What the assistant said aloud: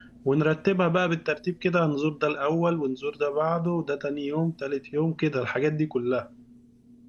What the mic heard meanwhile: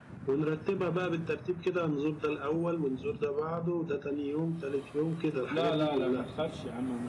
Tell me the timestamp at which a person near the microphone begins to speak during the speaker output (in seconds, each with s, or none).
5.5 s